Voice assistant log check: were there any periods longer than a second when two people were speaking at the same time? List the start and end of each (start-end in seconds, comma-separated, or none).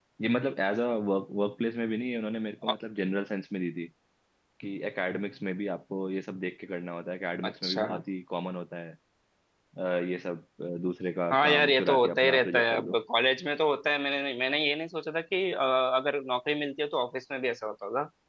11.3-13.0